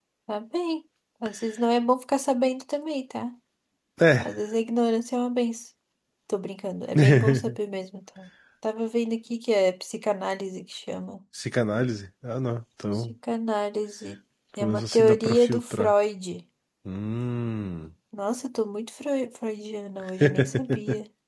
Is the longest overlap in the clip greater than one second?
Yes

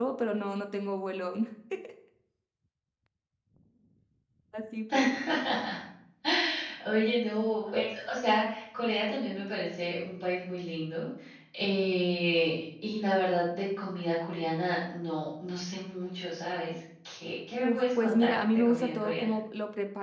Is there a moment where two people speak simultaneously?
Yes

